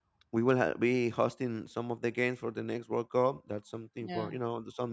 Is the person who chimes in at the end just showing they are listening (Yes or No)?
Yes